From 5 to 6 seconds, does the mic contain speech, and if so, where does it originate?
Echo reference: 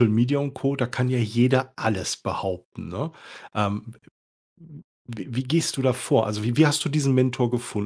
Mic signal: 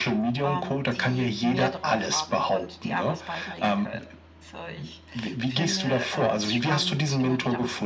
both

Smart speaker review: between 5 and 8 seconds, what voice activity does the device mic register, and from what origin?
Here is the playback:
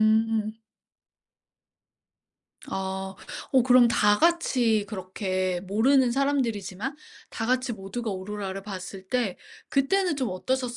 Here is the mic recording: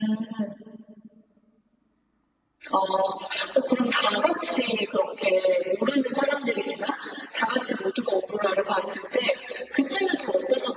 echo only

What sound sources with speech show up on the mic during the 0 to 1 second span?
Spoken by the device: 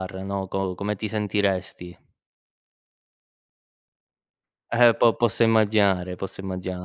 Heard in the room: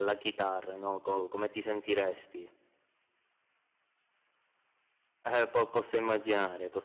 echo only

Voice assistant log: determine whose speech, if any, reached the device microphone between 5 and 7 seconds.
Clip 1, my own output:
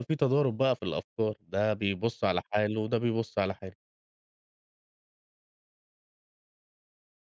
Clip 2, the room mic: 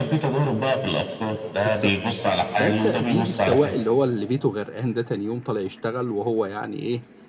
user only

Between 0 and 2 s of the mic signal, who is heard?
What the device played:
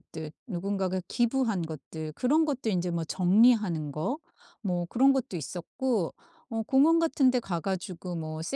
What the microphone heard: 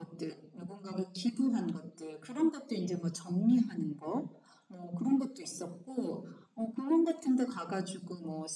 echo only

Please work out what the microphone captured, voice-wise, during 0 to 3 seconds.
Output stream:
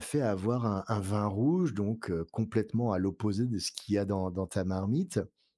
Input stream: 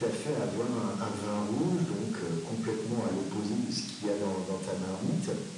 echo only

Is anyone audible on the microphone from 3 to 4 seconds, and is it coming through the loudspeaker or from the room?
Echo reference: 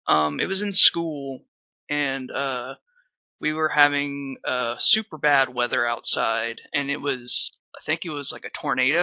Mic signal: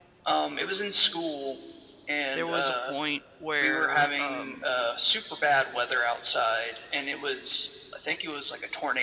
both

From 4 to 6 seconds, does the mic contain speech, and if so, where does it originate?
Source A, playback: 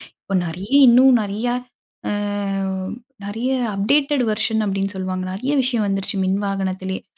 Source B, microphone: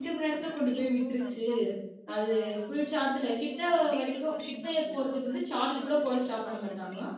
both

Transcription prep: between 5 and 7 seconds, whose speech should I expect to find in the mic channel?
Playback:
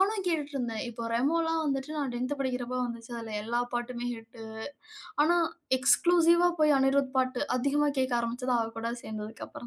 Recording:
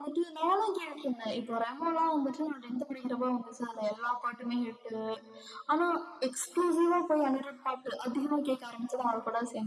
echo only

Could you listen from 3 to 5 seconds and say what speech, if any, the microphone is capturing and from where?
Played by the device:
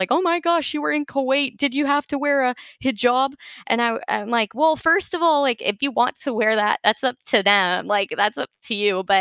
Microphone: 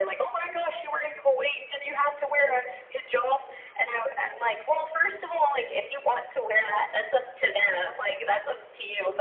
echo only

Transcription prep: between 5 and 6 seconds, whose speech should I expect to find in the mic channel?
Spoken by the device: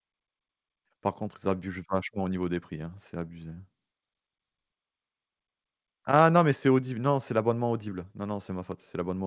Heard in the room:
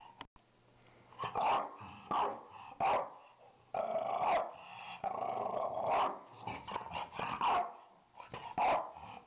neither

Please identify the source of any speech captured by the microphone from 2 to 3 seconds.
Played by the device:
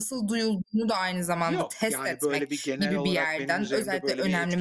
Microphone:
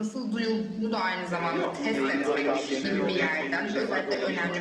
both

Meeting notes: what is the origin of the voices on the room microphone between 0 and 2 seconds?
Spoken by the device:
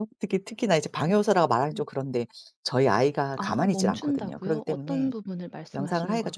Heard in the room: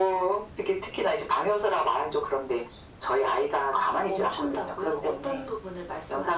echo only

